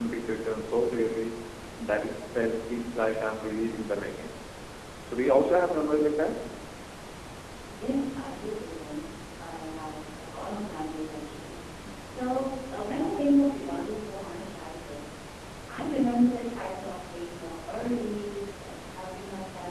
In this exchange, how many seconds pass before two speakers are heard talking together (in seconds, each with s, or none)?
none